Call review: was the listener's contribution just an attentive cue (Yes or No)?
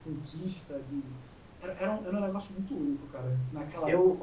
No